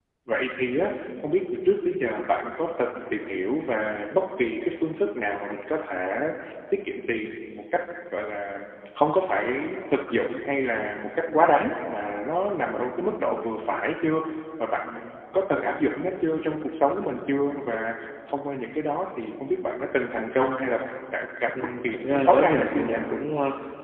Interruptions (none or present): present